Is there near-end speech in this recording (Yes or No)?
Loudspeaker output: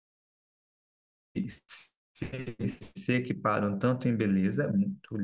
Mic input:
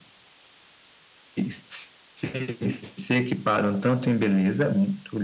No